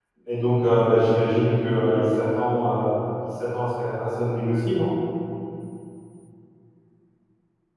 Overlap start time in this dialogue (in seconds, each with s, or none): none